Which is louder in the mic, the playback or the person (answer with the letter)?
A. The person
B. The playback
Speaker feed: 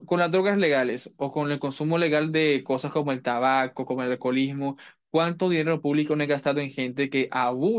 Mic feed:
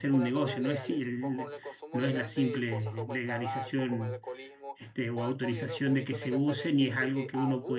A